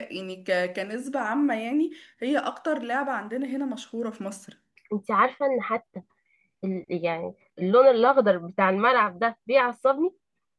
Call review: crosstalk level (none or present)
none